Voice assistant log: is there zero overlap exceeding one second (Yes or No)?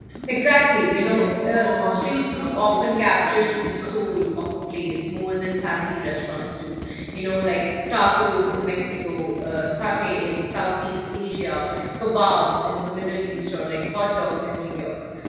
No